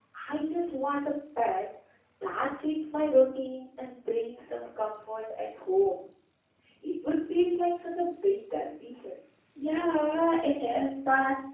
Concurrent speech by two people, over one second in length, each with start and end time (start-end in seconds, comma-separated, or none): none